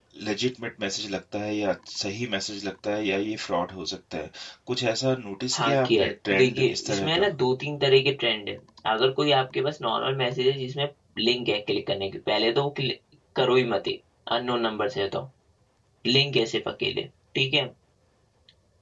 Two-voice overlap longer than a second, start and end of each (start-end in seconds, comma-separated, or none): 5.5-7.3